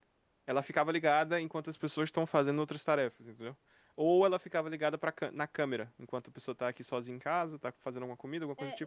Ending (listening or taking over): taking over